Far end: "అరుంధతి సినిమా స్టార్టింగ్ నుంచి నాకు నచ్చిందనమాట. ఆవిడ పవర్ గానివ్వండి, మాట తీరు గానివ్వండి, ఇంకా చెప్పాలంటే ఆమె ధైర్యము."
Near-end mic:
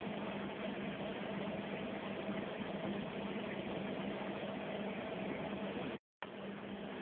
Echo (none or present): none